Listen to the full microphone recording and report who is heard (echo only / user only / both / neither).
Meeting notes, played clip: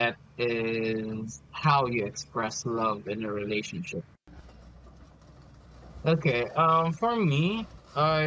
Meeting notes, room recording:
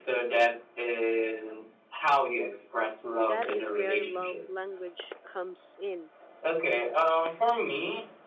both